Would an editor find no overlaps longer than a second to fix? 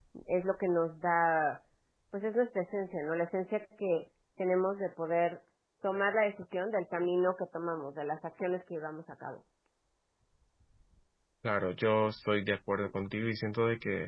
Yes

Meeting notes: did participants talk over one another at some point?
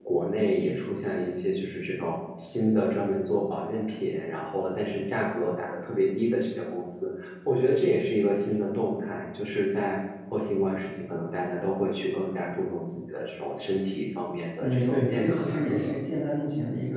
Yes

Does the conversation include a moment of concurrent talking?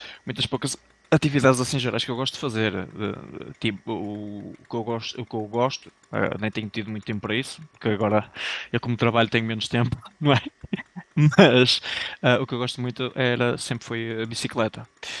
No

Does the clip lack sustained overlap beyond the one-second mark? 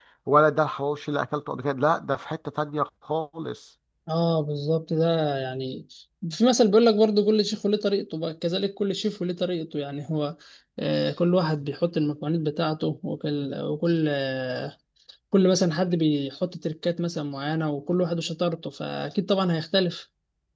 Yes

